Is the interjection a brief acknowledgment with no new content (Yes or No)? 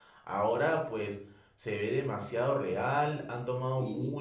Yes